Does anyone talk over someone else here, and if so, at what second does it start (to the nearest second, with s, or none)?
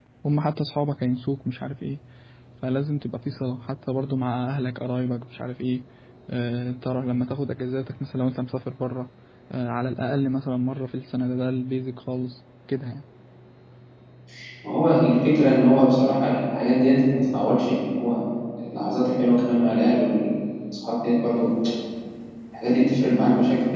none